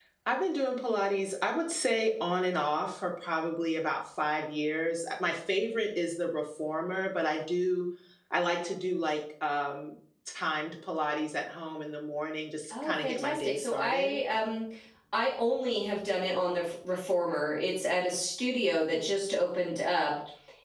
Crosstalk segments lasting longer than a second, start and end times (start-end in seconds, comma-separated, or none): 12.7-14.1